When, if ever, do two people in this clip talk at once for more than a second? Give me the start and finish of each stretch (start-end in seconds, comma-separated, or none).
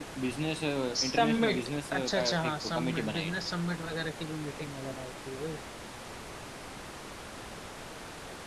0.9-3.4